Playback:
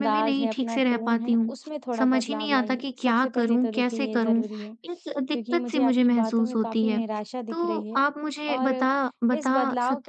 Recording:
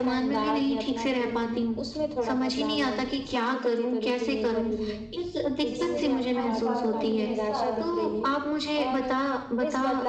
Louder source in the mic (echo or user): echo